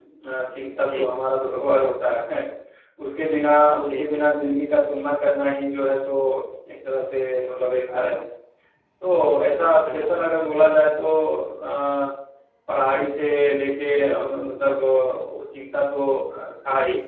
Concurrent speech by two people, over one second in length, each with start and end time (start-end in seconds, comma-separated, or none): none